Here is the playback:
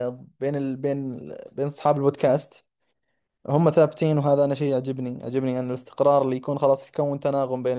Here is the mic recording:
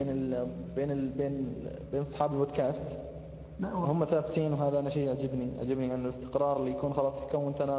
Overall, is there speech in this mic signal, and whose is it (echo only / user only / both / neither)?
both